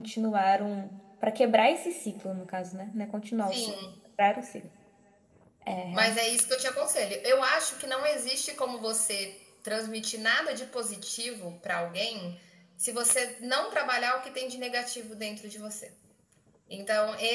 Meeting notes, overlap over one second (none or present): none